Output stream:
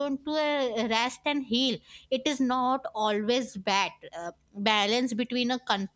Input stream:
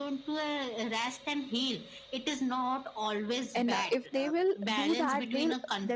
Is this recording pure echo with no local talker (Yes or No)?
No